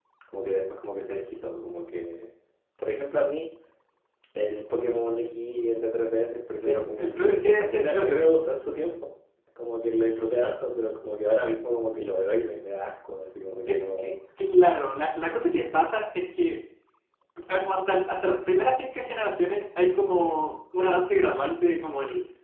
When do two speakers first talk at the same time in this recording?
6.6 s

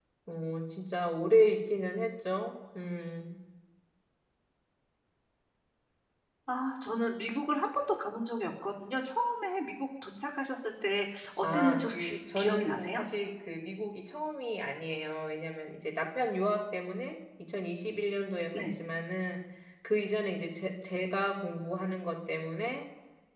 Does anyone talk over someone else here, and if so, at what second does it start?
11.4 s

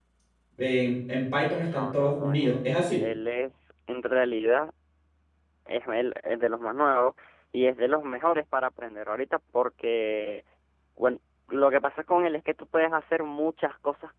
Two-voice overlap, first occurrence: 1.6 s

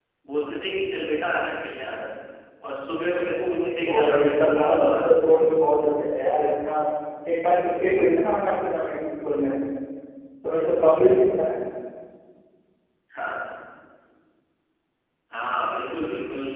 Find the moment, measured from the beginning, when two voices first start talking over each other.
3.8 s

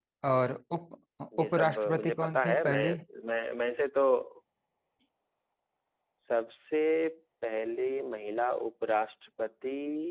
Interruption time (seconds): 1.3 s

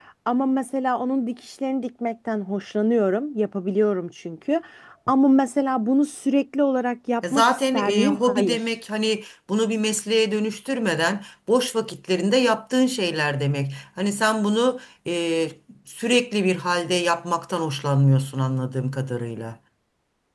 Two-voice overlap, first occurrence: 7.2 s

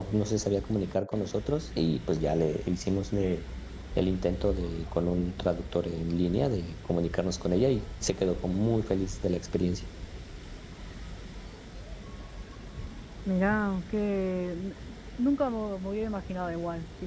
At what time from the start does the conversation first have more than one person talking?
none

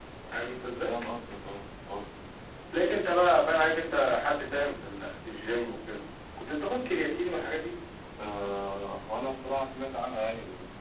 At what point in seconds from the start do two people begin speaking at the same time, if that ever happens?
none

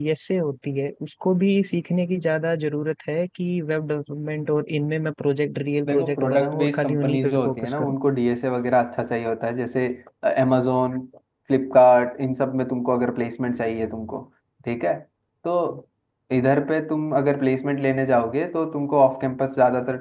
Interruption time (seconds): 5.8 s

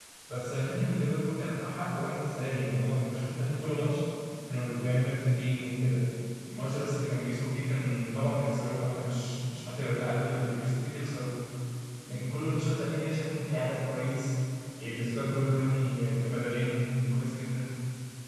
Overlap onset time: none

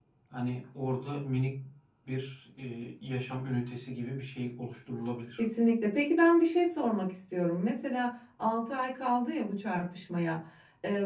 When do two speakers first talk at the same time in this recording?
none

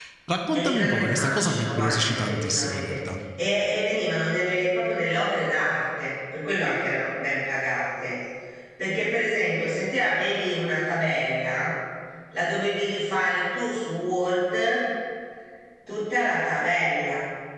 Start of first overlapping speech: 0.5 s

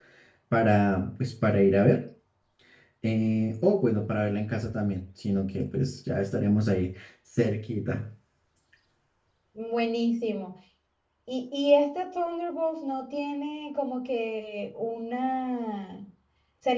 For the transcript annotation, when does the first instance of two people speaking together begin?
none

